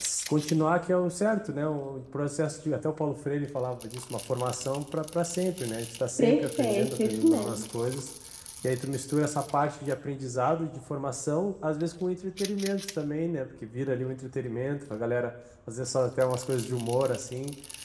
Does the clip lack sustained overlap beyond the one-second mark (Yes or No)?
No